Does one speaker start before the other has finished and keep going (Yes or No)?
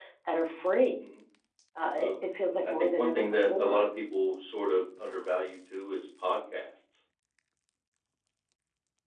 Yes